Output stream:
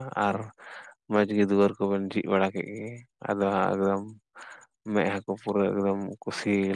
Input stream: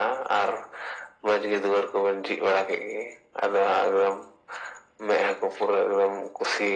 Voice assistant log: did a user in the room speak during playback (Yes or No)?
No